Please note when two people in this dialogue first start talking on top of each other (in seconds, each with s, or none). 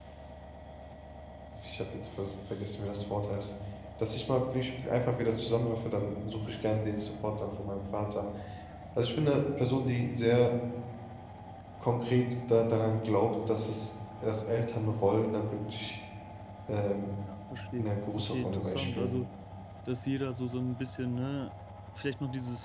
17.8 s